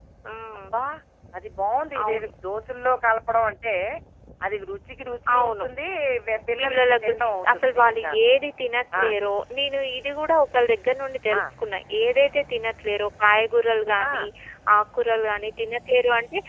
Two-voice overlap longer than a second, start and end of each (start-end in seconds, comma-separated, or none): 6.6-8.2